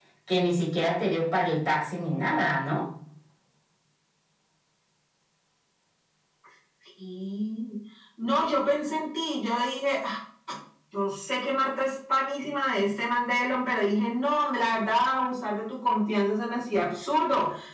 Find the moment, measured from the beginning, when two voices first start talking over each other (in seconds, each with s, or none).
none